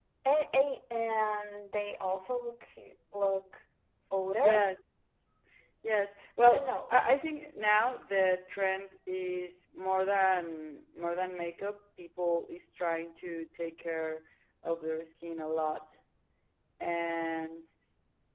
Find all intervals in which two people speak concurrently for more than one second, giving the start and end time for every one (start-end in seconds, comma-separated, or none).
none